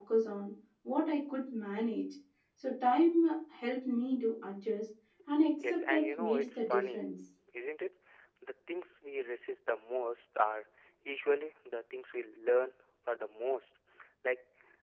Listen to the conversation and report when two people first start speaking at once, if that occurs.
5.6 s

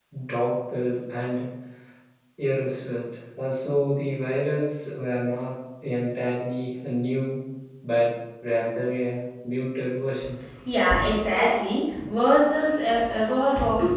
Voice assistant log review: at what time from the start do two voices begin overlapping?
none

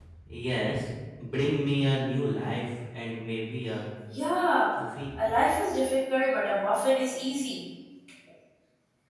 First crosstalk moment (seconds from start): none

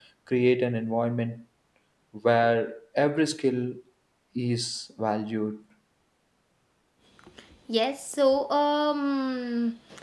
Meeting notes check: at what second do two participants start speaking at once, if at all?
none

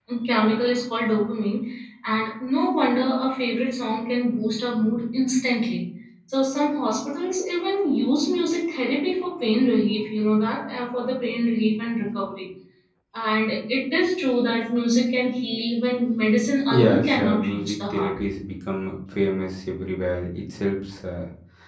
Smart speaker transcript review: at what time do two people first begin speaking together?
16.7 s

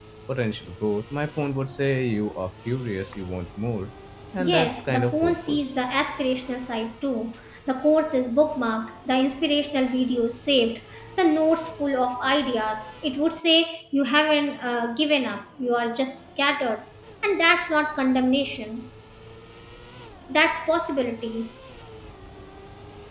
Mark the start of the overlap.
4.4 s

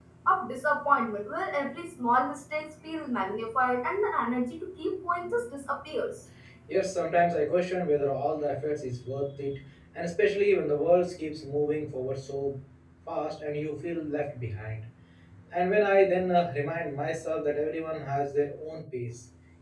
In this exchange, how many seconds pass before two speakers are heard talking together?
none

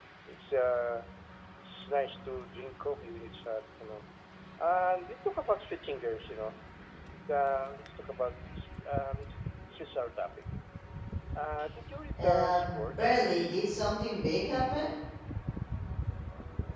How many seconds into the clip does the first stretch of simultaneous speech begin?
12.2 s

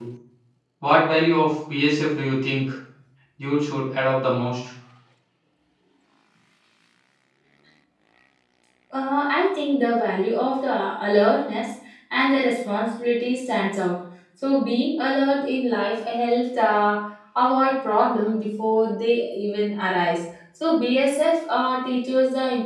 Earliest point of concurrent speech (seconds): none

